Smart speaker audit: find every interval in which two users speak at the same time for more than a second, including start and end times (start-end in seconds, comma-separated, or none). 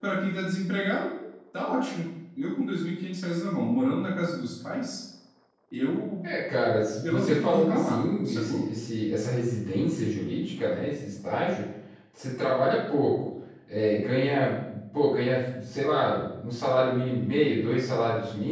7.0-8.6